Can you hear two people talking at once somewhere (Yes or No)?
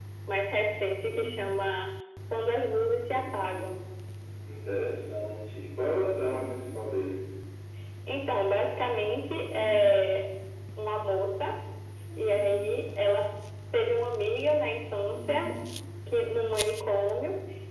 No